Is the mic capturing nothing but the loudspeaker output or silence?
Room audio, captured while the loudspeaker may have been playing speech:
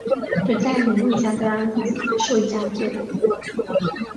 No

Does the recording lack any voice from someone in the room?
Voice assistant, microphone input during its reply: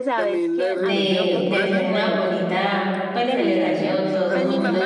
No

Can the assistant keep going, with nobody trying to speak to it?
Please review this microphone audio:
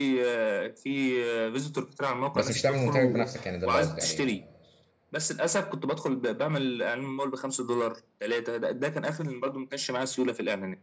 No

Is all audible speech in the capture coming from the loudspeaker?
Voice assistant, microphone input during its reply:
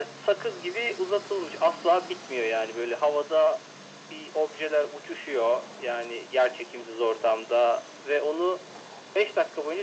Yes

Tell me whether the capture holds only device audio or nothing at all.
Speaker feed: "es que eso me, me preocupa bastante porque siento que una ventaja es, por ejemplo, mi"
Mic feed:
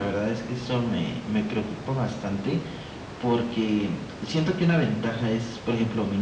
Yes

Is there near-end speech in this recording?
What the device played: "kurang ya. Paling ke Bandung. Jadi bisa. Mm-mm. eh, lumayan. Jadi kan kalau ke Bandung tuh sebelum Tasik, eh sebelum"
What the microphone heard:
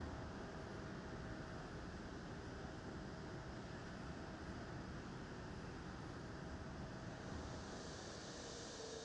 No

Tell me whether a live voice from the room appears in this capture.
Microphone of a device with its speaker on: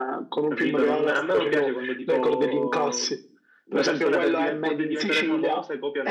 Yes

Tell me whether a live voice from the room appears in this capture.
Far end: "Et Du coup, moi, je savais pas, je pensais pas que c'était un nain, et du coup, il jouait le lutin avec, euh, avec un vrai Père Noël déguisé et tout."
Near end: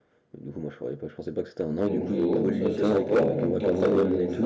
Yes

